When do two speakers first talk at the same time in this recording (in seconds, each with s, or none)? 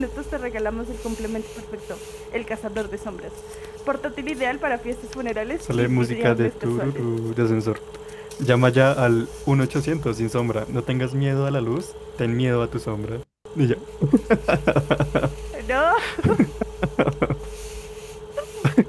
5.8 s